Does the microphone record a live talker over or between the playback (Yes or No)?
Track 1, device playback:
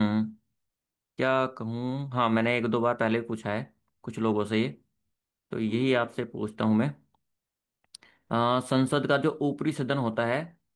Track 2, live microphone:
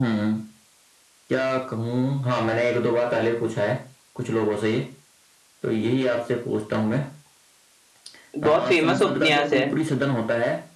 Yes